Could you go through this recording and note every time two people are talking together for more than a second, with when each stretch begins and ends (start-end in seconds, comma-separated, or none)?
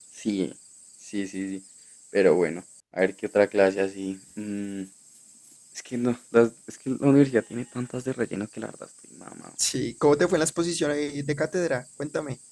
none